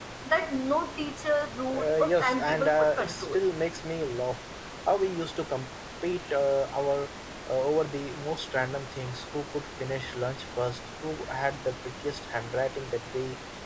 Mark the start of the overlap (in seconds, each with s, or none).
1.7 s